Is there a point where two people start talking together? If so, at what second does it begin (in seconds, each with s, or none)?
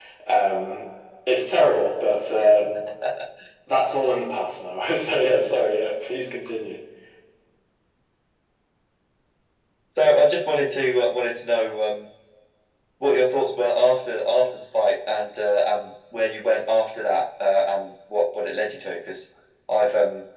none